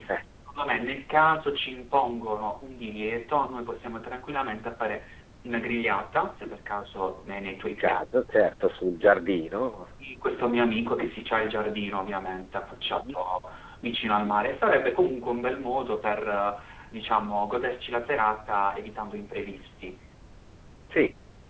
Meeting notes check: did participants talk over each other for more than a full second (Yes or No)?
No